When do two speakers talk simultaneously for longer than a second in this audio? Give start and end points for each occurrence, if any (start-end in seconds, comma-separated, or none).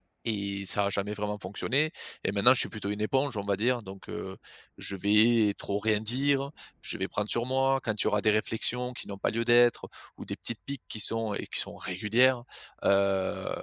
none